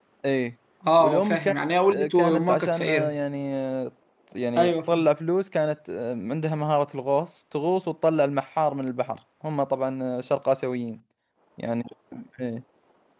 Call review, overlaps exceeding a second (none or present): present